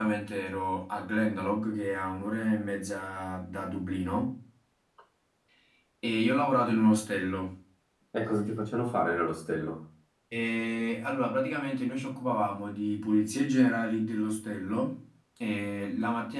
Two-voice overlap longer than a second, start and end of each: none

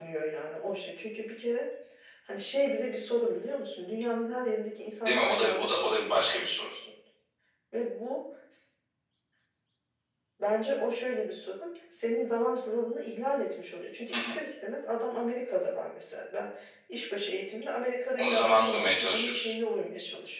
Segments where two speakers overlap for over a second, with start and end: 5.0-6.7, 18.2-19.5

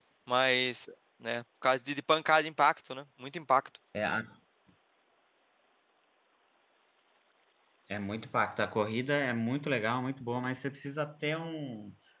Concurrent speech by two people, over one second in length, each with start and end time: none

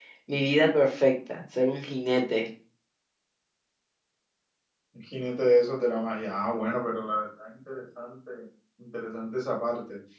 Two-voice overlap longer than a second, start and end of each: none

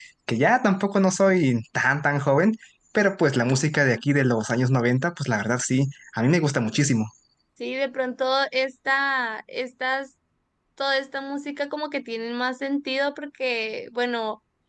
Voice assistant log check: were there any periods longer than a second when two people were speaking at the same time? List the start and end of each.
none

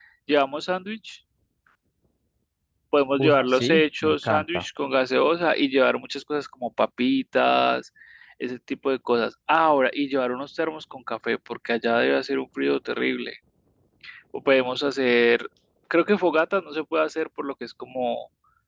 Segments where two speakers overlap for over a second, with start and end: 3.2-4.6

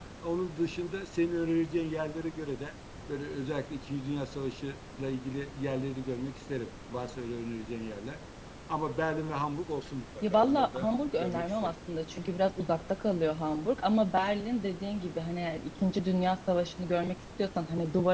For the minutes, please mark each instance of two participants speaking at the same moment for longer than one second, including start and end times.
10.2-11.7

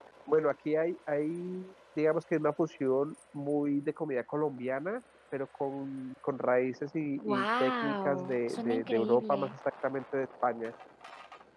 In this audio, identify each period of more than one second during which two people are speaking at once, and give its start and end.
7.2-9.5

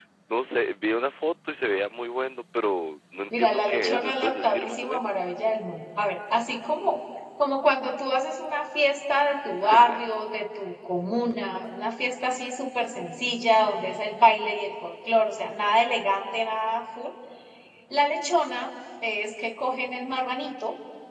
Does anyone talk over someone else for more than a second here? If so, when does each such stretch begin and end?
3.4-5.2

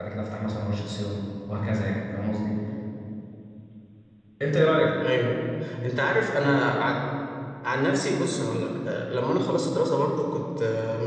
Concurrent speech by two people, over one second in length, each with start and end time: none

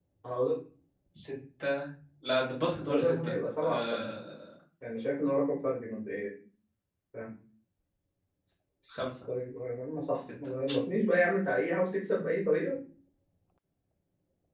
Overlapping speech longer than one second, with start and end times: 2.8-4.1

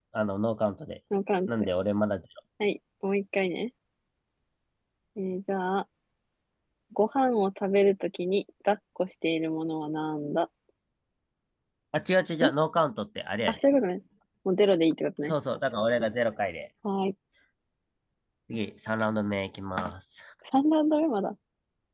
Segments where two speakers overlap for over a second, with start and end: none

